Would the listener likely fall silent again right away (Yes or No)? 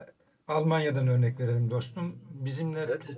Yes